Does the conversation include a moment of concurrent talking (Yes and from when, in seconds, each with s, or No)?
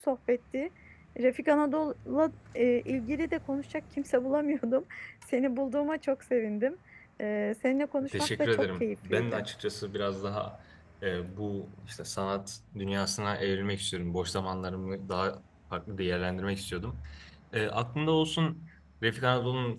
Yes, from 8.1 s